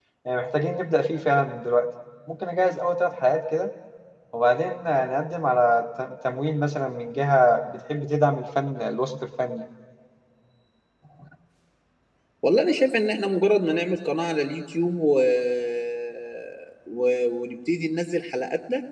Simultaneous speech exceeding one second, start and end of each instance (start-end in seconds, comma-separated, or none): none